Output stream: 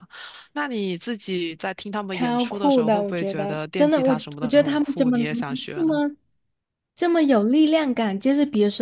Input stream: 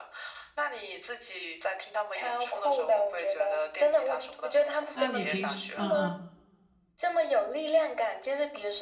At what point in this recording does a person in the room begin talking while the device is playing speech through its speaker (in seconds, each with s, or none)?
4.9 s